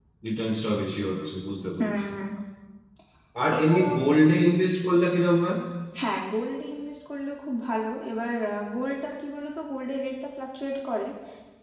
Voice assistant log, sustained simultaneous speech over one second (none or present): none